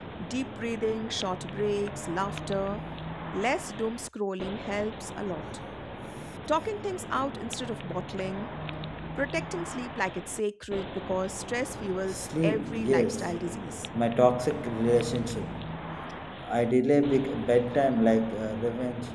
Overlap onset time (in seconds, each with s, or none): 12.1 s